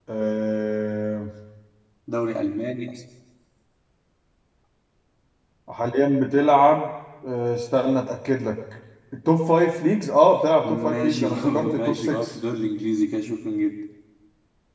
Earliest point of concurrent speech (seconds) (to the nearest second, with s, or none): 11 s